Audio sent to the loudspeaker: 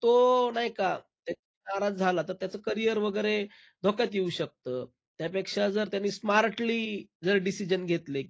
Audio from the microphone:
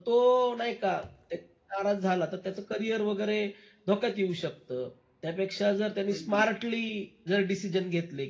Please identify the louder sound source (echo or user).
echo